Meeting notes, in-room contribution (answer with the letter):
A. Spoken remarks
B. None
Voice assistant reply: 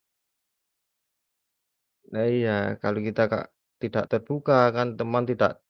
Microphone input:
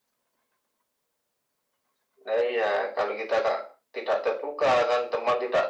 B